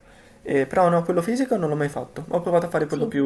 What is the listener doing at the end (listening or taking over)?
listening